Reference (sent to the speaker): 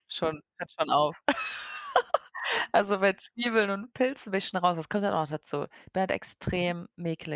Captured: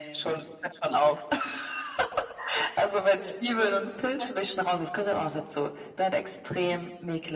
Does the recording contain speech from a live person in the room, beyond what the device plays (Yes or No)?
Yes